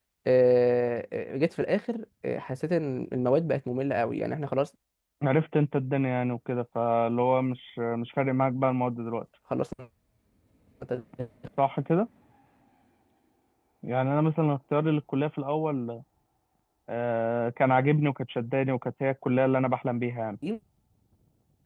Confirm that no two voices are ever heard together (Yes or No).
Yes